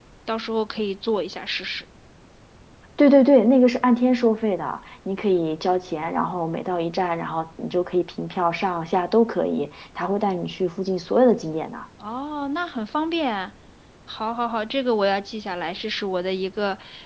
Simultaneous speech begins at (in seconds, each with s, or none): none